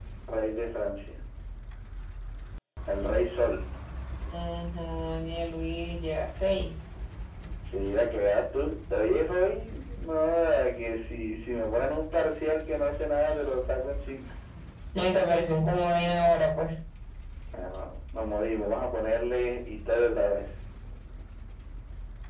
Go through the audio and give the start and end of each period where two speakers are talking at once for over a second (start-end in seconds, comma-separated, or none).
none